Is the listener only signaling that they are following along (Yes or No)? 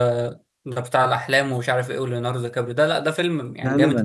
Yes